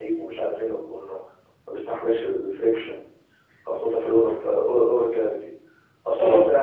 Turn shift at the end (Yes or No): No